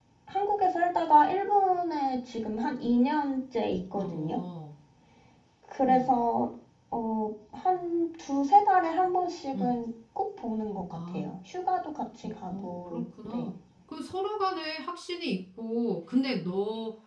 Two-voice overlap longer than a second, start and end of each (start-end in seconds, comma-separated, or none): 12.2-13.5